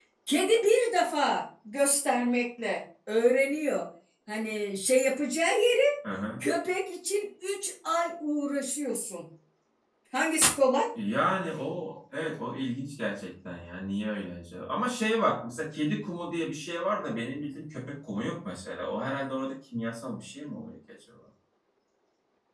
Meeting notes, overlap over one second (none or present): none